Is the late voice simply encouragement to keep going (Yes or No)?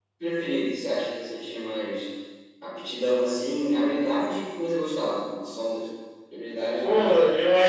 No